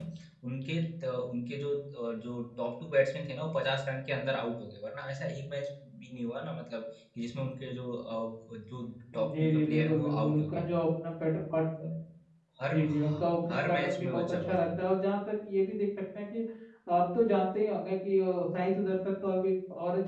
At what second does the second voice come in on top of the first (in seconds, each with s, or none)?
9.4 s